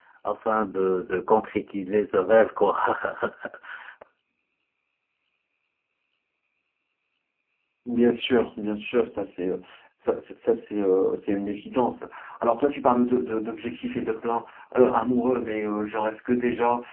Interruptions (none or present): none